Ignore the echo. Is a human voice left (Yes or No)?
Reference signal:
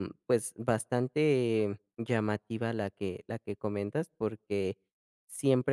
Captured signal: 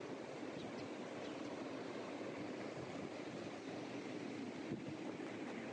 No